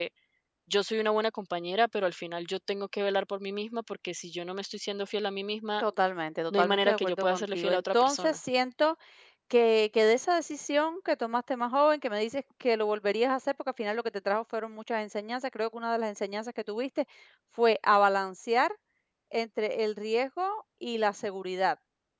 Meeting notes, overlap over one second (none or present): present